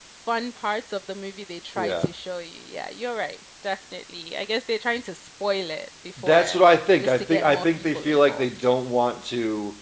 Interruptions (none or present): present